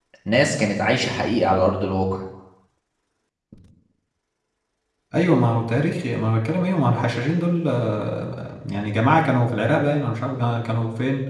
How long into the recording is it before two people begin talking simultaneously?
none

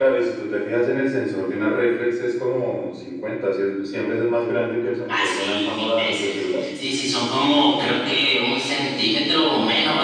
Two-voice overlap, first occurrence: 5.1 s

